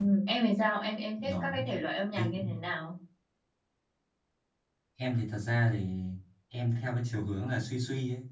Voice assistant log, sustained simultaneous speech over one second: none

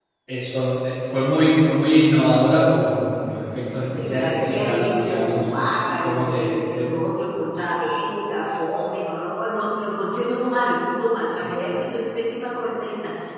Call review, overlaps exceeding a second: present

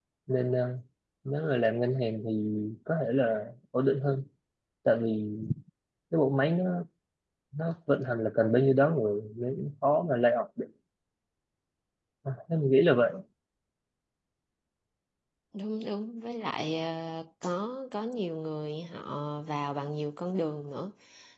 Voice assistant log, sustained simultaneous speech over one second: none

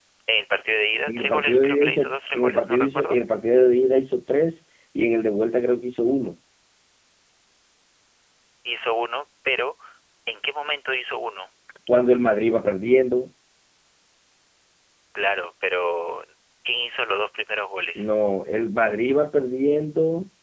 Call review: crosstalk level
present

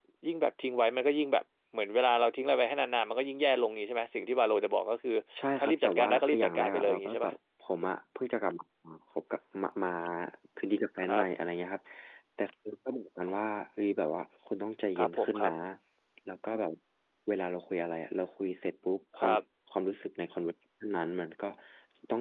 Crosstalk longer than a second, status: present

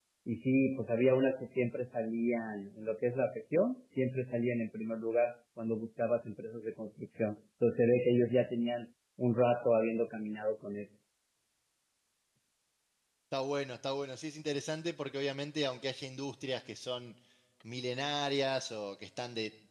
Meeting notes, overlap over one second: none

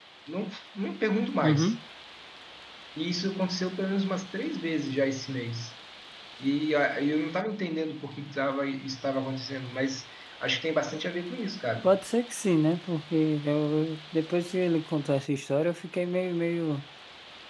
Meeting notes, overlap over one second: none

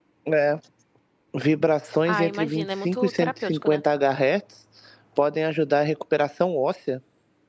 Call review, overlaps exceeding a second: present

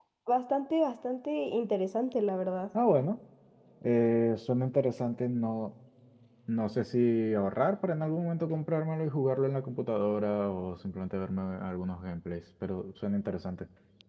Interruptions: none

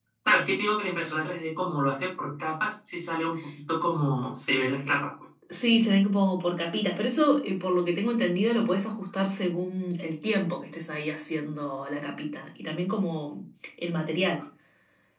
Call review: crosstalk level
none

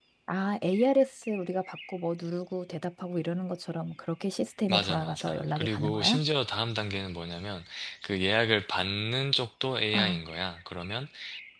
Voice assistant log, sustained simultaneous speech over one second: present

